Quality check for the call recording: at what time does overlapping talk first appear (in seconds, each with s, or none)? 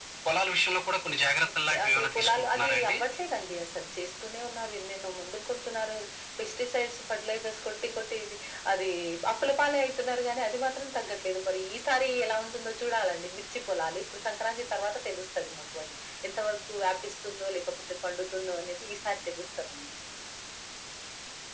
1.7 s